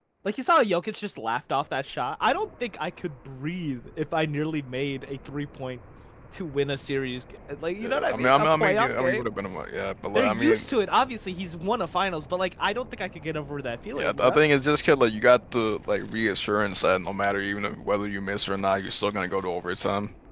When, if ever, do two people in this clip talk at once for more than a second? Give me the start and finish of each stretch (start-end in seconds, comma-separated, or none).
7.8-9.3